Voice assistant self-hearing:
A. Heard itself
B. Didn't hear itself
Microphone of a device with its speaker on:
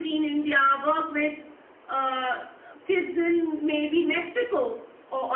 A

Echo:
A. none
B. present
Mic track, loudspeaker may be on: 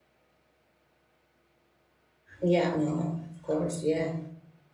A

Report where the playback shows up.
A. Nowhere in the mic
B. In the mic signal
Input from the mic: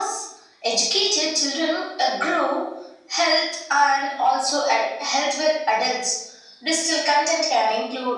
B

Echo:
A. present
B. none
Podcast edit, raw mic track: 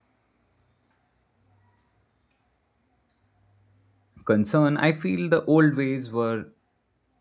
B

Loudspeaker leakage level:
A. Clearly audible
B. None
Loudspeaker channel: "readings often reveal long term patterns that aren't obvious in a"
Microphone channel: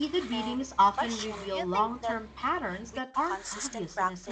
A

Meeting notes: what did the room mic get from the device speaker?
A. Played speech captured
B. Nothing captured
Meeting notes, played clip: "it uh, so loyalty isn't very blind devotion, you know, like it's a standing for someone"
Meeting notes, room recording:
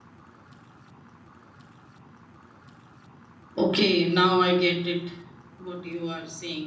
B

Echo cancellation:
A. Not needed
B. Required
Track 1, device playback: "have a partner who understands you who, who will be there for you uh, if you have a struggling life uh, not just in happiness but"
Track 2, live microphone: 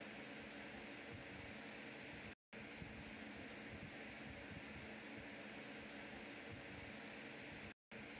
A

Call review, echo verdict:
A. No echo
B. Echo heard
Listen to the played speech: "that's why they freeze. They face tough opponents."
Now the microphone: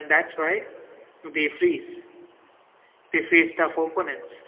B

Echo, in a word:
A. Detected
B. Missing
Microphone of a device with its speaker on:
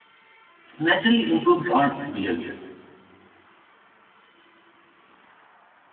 B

